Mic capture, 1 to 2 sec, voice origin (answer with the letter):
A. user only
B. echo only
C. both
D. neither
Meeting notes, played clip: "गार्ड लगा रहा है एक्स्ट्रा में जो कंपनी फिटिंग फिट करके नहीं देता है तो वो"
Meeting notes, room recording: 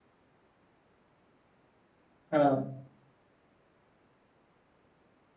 D